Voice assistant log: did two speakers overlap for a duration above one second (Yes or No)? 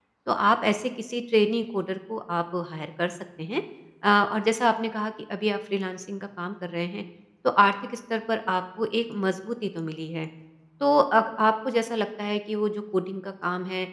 No